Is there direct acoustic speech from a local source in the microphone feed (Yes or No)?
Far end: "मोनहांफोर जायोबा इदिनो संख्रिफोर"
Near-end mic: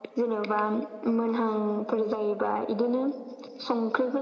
No